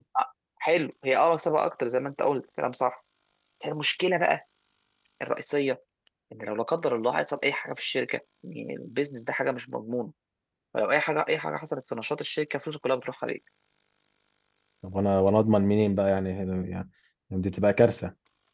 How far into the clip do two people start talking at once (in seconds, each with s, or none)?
none